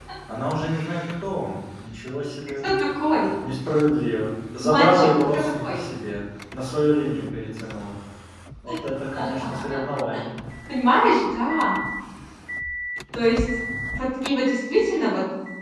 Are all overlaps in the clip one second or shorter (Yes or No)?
No